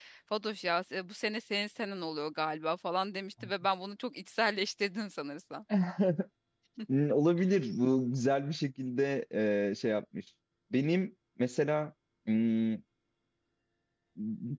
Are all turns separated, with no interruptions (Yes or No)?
Yes